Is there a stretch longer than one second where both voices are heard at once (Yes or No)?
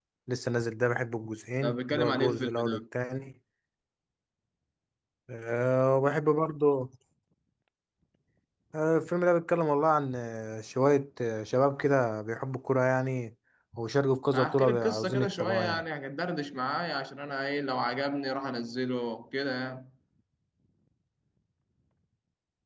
Yes